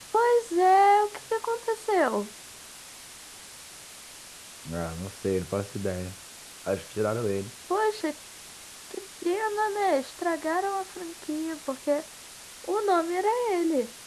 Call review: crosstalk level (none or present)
none